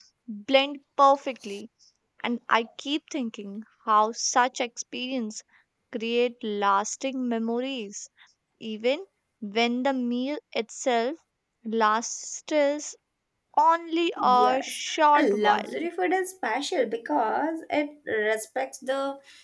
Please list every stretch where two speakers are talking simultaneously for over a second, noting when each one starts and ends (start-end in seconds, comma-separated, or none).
14.2-15.7